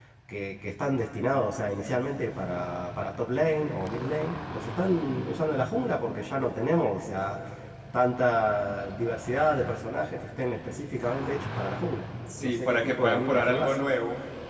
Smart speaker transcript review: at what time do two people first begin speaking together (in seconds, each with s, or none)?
12.3 s